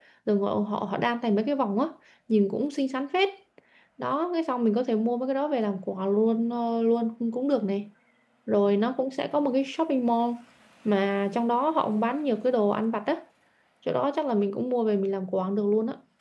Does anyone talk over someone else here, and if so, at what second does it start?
none

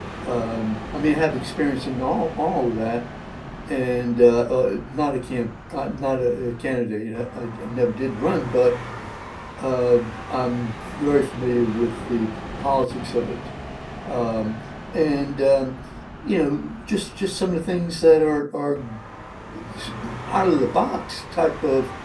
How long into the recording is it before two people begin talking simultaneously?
none

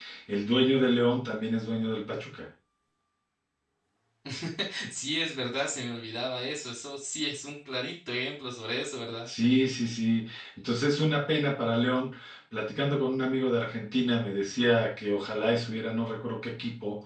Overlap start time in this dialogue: none

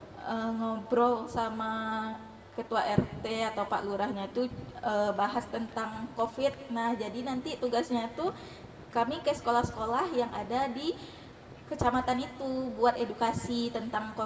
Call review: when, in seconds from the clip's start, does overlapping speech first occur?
none

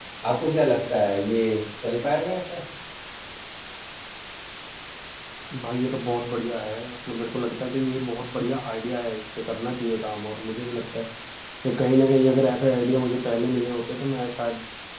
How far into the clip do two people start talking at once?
none

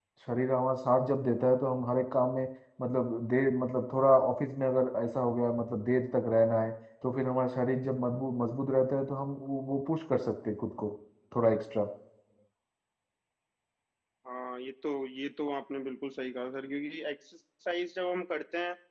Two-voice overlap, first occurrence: none

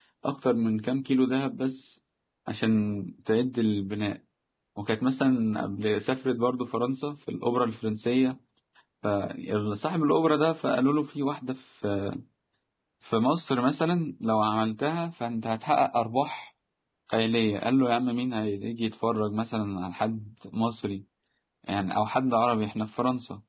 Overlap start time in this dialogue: none

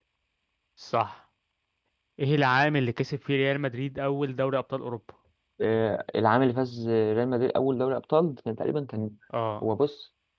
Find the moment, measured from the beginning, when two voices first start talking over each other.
none

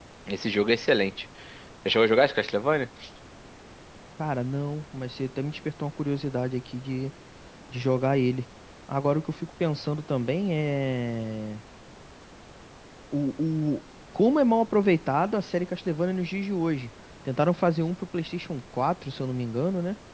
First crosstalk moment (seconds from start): none

